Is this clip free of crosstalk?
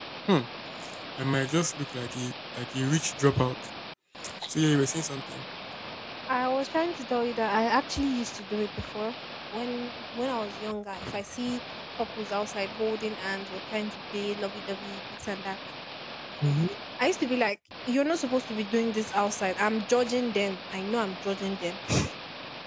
Yes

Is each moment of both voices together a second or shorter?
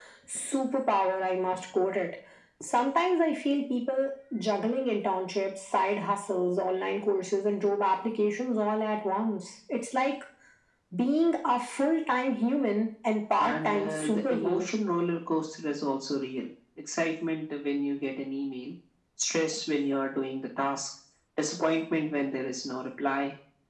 No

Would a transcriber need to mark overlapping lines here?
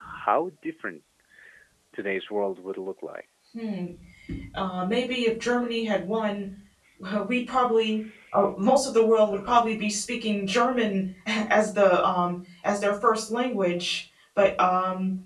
No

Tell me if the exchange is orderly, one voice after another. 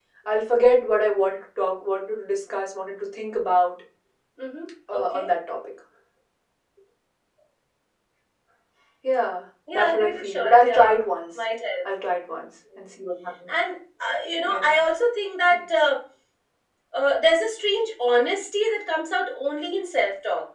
No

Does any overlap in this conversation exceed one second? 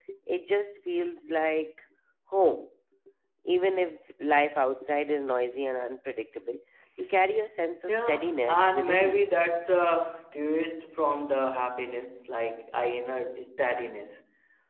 Yes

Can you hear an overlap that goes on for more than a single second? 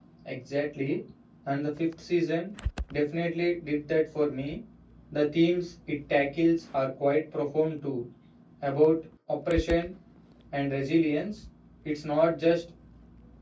No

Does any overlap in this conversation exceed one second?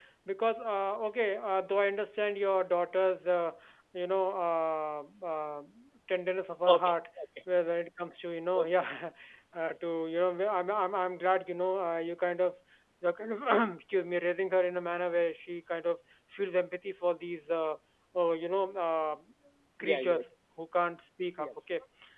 No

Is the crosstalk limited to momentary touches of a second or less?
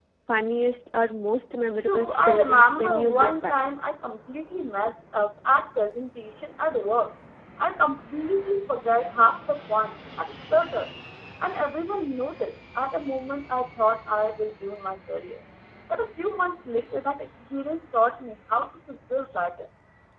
No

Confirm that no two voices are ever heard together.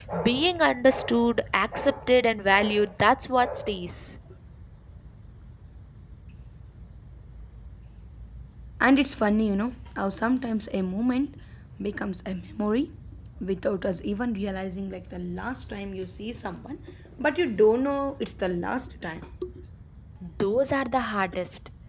Yes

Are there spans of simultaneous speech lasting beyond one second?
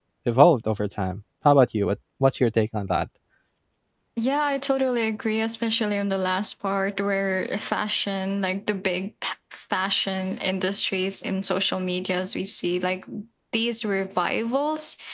No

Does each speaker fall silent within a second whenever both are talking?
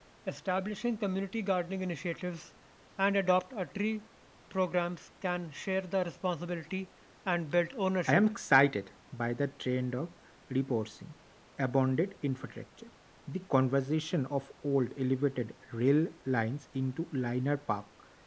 Yes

